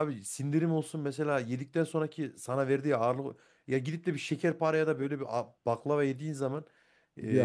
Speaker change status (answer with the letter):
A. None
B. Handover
A